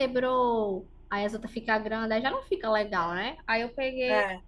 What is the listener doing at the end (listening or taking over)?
listening